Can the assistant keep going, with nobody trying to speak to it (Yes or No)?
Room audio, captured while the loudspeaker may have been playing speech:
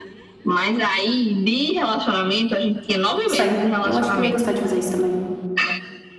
No